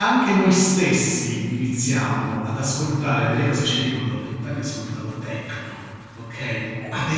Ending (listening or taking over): listening